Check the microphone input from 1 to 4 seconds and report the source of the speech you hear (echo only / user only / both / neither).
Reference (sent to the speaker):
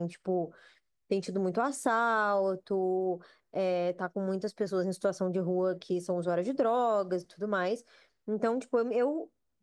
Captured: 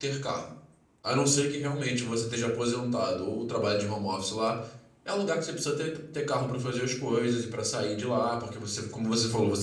user only